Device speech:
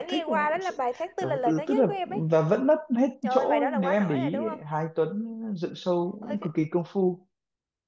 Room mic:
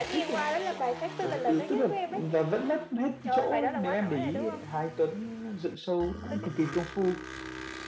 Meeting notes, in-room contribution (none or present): none